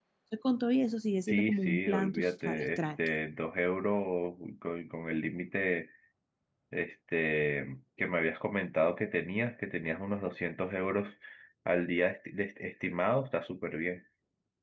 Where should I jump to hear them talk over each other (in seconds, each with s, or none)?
1.3 s